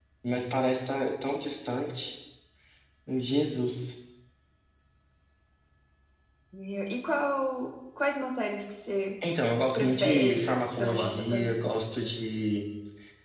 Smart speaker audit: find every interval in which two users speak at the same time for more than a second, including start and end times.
9.7-11.5

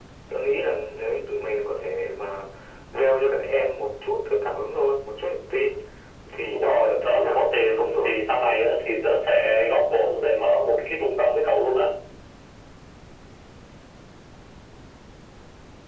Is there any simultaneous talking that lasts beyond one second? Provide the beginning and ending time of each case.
6.5-8.1

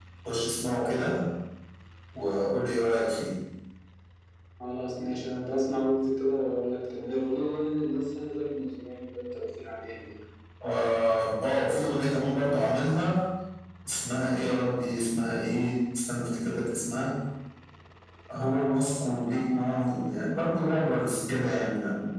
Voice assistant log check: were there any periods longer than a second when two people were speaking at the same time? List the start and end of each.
none

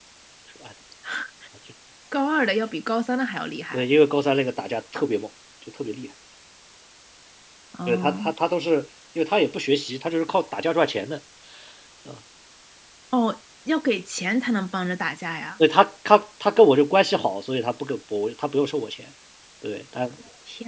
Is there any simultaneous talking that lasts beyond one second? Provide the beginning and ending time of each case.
none

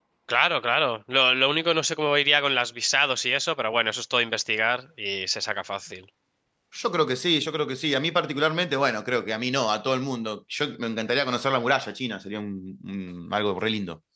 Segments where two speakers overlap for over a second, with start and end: none

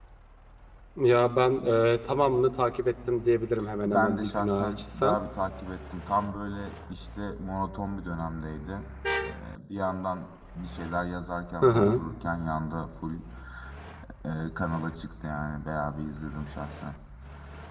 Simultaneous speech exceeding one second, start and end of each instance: 3.9-5.2

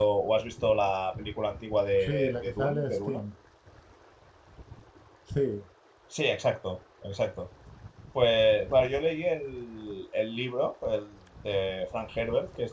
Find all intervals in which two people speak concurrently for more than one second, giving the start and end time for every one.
2.0-3.2

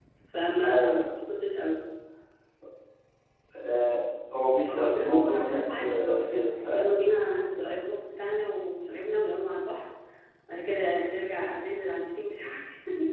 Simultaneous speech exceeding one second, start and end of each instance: 4.7-6.2

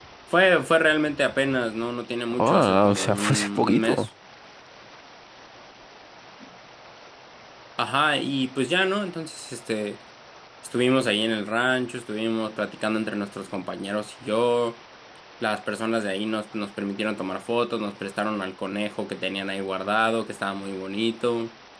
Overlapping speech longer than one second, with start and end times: 2.4-4.1

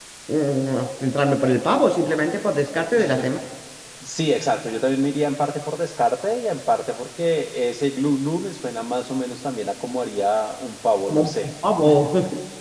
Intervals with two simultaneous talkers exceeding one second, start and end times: none

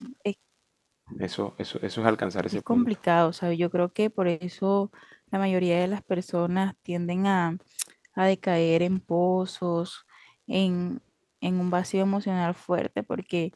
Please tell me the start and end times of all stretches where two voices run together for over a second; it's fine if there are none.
none

